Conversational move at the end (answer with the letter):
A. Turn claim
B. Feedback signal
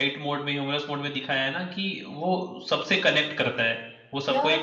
B